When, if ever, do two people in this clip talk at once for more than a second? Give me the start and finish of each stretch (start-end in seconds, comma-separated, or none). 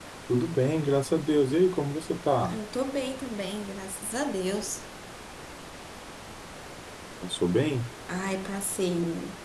none